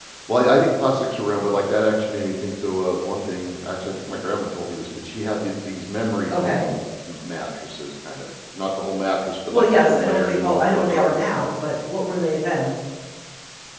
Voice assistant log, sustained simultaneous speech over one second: present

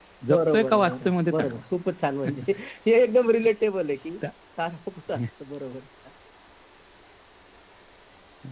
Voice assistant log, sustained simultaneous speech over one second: present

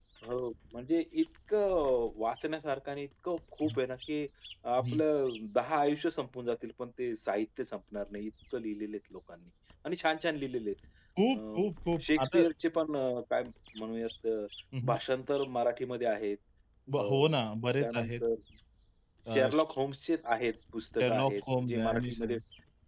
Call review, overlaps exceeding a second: present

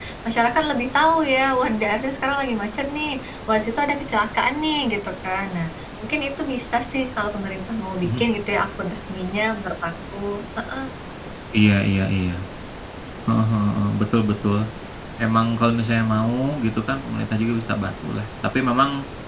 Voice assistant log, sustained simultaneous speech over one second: none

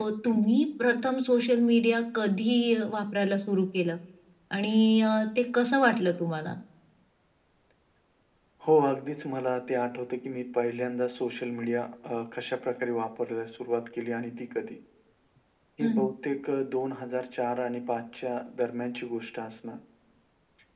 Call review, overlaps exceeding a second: none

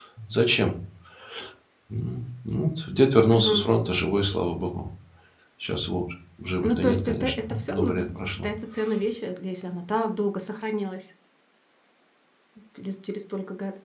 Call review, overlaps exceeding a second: present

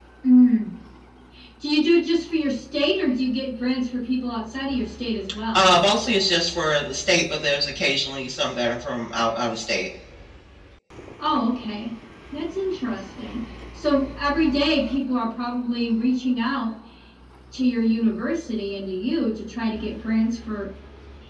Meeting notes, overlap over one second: none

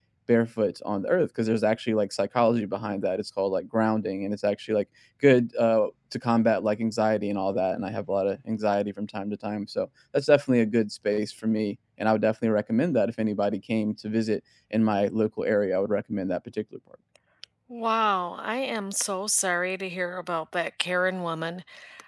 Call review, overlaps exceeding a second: none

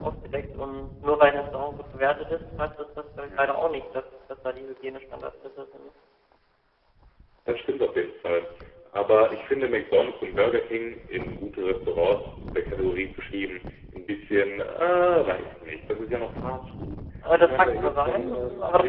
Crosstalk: present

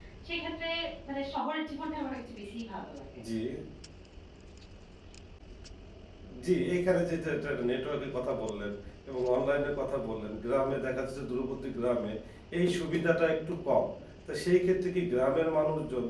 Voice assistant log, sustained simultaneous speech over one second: none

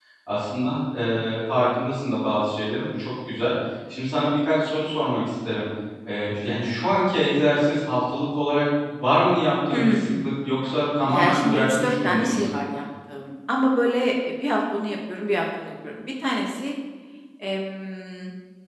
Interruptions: present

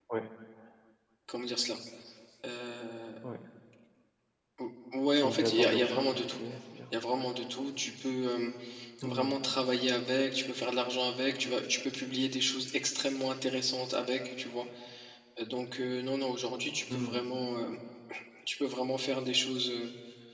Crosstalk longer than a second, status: present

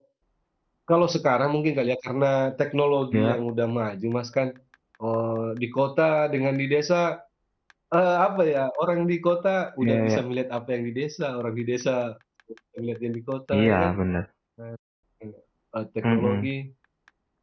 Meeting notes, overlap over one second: none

